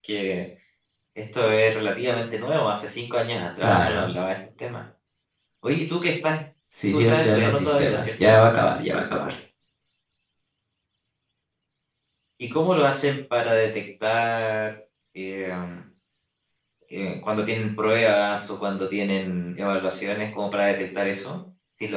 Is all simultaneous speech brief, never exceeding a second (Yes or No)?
No